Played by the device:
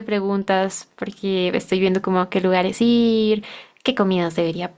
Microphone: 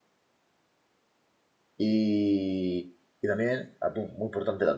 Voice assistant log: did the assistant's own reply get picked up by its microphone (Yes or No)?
No